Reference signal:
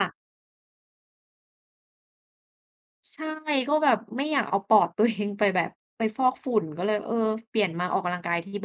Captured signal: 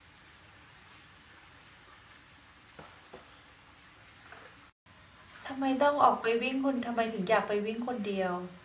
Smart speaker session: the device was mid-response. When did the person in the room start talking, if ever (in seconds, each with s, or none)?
5.5 s